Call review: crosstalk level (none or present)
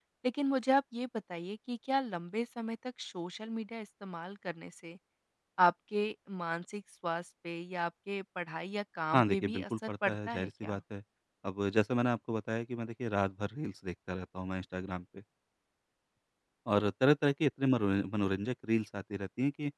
present